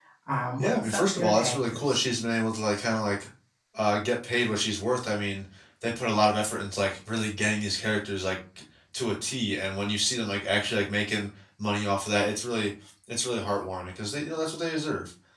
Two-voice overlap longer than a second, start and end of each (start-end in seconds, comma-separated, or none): 0.6-2.0